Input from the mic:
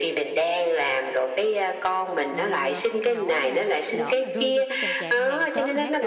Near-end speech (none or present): present